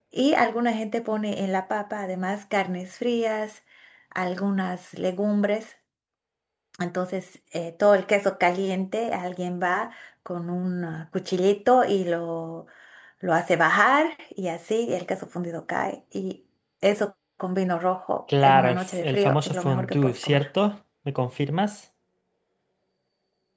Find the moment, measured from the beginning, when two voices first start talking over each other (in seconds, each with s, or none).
18.3 s